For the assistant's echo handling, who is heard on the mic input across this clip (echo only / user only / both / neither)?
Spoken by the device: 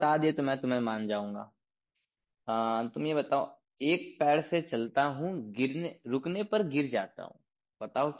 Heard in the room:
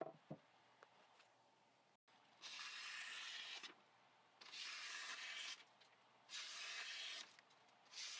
neither